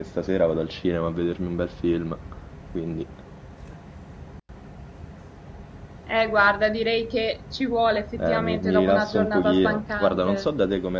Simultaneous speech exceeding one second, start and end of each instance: 8.2-10.4

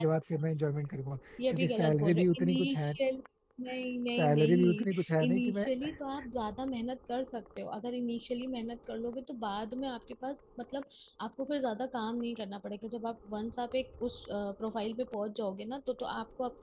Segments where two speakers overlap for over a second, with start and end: 1.5-2.9, 4.2-5.6

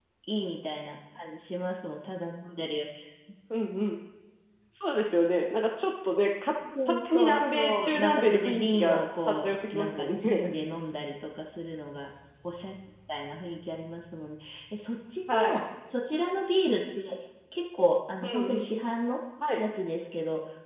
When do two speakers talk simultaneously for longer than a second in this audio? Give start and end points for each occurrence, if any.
6.8-10.5

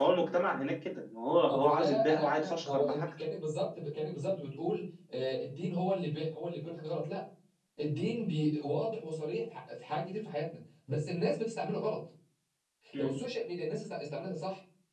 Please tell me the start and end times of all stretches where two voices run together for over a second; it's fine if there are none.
1.5-3.0

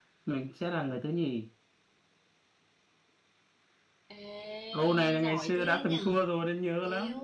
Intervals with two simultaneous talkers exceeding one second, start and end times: 4.7-6.1

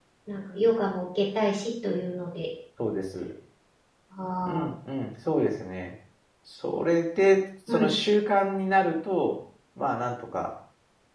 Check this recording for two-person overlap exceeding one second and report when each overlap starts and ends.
none

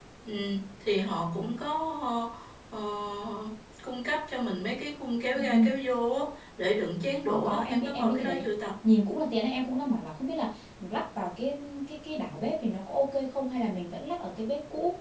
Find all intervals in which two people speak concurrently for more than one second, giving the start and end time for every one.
7.3-8.5

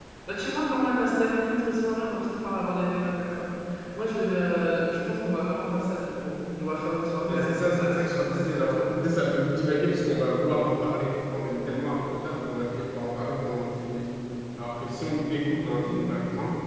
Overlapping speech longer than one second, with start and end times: 7.3-8.9

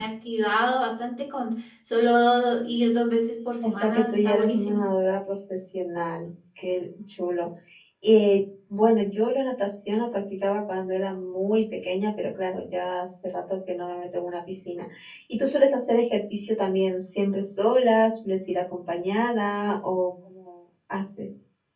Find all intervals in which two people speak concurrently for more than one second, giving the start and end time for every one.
3.6-4.9

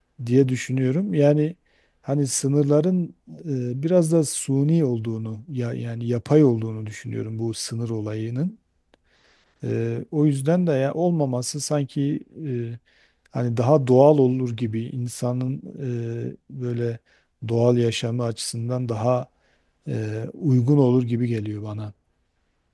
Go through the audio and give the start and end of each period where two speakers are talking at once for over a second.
none

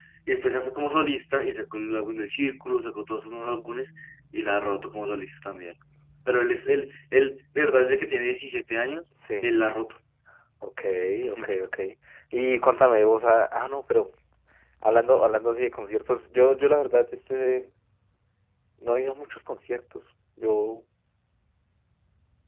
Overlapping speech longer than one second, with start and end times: none

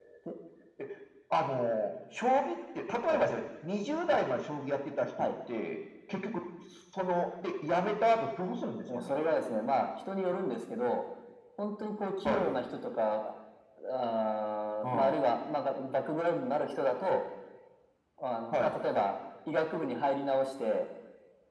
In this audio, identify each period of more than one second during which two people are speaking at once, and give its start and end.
none

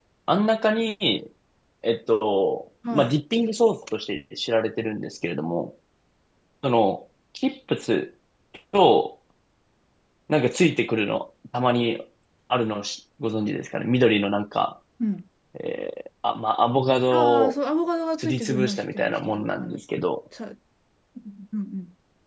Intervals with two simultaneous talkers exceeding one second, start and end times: 18.1-19.8

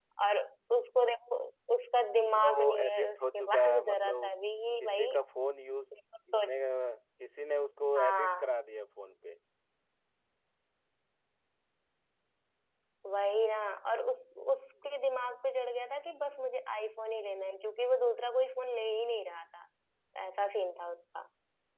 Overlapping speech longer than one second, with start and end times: 2.2-4.3

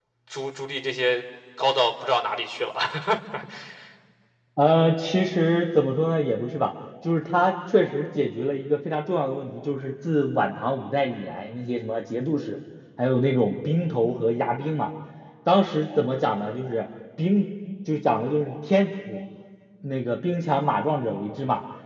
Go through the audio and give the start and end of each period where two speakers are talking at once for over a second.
none

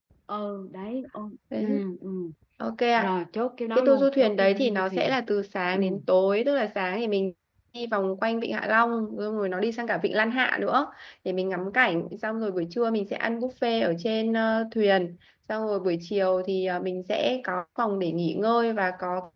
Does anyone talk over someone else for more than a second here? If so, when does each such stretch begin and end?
3.8-5.1

